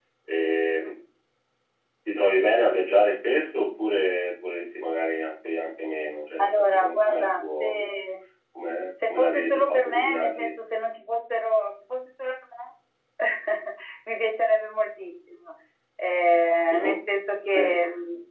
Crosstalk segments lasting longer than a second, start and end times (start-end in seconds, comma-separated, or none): 6.4-7.7, 9.1-10.5